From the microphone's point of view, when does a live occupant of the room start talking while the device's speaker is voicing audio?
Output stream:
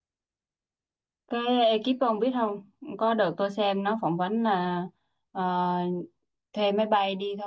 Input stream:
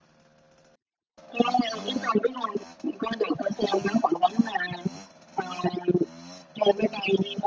none

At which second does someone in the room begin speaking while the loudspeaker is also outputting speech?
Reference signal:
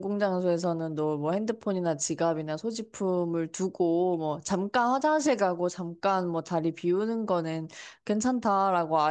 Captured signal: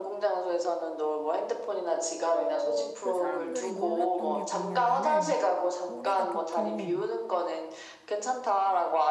2 s

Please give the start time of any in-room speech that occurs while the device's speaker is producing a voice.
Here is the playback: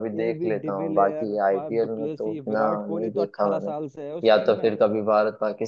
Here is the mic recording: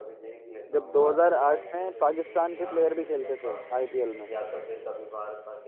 1 s

